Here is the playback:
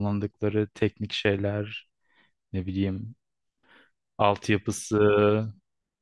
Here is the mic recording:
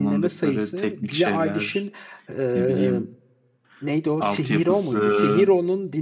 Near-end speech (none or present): present